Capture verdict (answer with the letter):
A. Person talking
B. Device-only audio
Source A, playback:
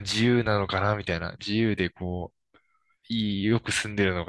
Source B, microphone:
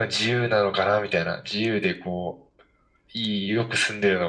B